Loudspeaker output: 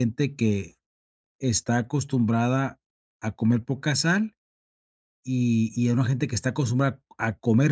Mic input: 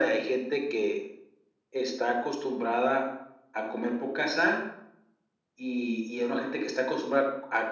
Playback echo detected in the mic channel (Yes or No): Yes